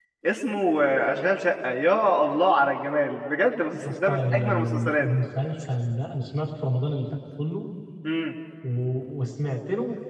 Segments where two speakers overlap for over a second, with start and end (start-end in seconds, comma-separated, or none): 3.7-5.1